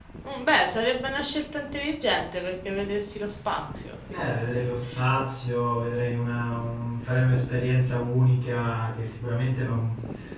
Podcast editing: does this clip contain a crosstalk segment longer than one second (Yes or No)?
No